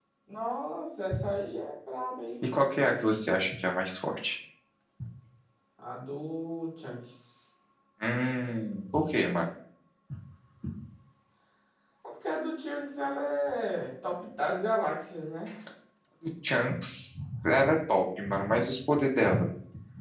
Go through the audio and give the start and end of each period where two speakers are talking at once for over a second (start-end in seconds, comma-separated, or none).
none